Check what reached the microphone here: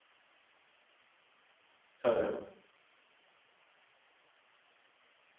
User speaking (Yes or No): Yes